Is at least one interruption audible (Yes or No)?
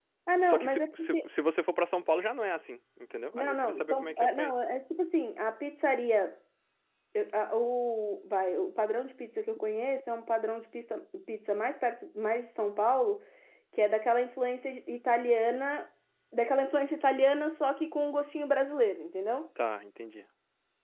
Yes